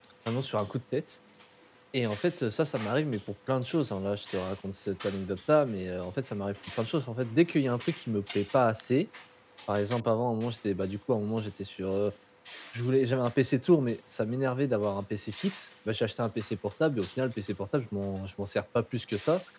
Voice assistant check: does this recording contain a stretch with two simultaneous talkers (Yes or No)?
No